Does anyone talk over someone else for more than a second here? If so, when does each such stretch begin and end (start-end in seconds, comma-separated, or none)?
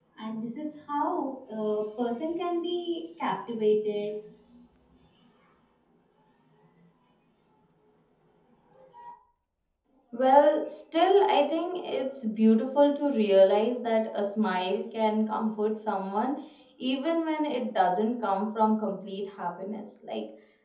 none